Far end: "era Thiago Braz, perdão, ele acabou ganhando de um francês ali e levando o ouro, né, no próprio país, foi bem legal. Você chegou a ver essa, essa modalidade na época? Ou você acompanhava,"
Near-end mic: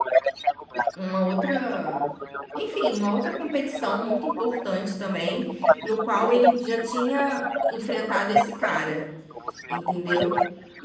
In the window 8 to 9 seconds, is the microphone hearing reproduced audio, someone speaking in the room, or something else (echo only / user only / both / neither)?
both